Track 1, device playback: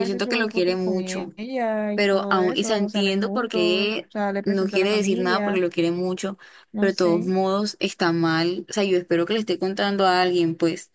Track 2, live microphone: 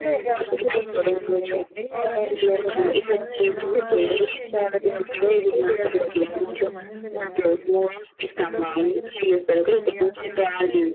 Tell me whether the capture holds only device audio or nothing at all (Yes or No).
No